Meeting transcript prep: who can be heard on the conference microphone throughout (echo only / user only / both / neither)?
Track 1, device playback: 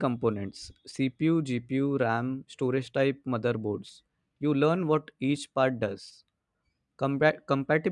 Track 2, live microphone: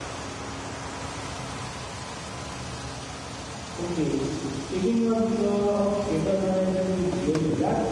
user only